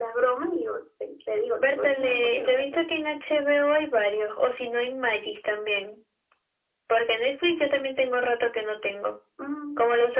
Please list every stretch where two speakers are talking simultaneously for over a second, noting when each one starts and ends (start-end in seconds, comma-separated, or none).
1.6-2.8